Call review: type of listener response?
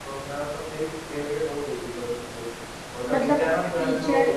taking over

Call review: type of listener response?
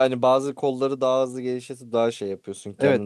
taking over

